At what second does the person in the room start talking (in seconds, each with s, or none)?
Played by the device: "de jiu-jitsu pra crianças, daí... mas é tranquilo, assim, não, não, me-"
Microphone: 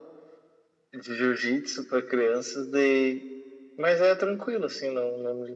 none